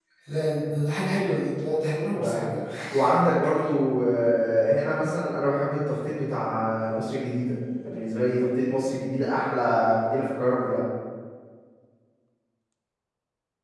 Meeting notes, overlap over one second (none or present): none